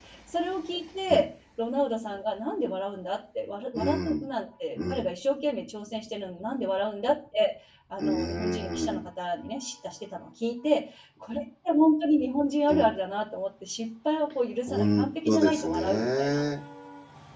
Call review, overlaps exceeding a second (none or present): present